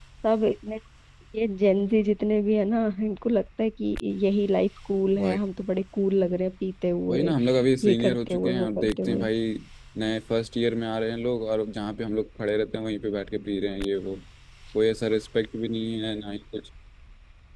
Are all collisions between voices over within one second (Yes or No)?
No